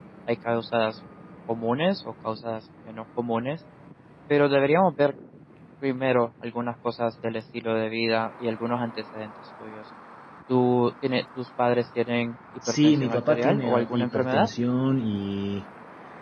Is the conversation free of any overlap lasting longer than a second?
No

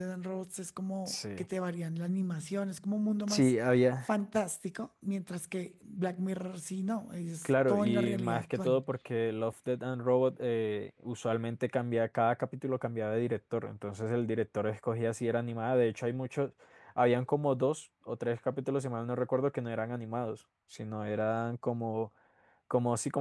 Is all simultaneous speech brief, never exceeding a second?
No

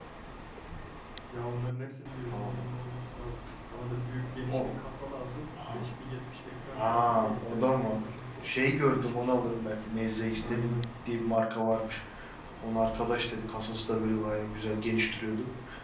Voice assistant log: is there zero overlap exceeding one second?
No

